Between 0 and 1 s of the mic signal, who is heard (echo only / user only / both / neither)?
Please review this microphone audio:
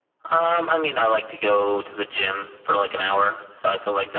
echo only